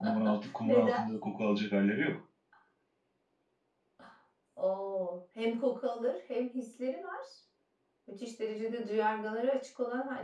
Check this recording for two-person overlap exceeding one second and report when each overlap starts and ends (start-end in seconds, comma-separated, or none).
none